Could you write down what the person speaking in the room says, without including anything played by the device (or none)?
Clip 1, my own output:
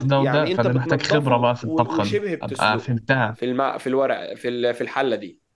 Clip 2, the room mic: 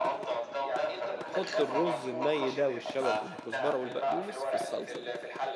تحط الرز الني ده والشبت والكزبره والبقدونس في الصلصه دي